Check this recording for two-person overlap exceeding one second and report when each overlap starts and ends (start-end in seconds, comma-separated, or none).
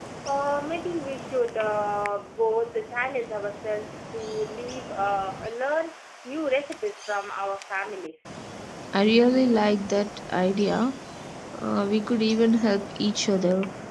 none